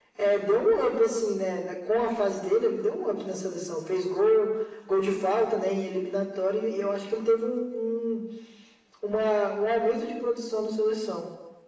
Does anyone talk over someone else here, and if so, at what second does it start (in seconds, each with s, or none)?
none